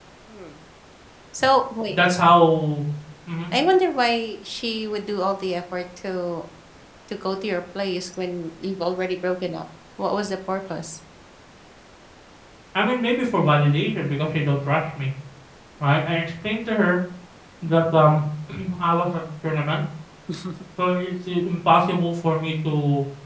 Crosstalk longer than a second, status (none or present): none